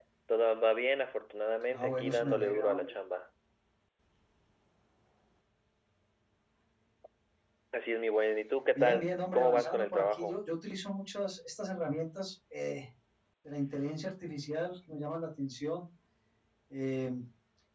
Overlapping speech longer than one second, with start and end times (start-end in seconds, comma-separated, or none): 1.7-2.9, 8.8-10.4